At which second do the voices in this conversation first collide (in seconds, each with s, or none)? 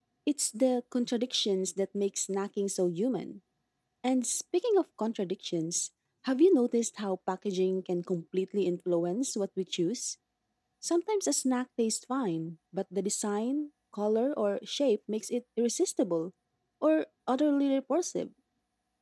none